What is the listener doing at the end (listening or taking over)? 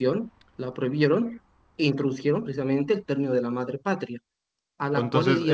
taking over